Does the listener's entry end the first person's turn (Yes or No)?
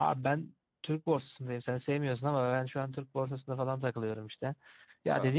No